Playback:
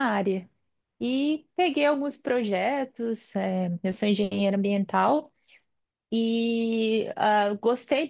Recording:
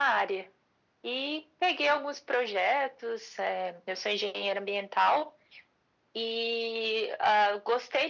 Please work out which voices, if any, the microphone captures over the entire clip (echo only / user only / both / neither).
echo only